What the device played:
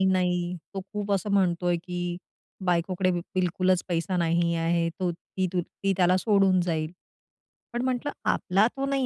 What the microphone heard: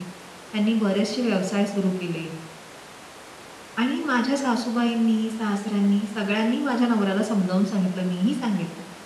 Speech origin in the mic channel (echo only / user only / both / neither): user only